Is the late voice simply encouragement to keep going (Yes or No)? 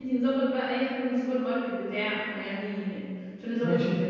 No